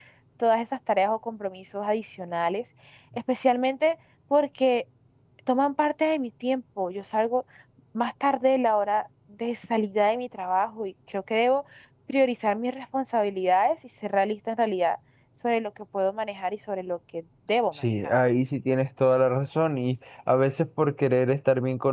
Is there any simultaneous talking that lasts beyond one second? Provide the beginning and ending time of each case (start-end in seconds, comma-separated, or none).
none